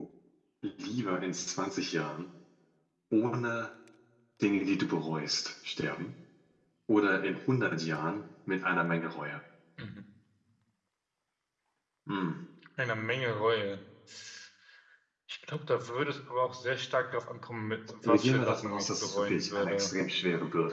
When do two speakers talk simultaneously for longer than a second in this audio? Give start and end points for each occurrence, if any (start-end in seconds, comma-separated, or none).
18.0-19.9